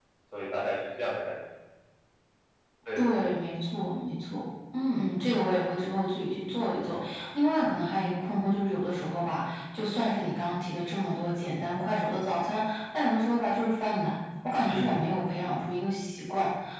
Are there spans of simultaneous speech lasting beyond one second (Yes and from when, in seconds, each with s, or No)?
No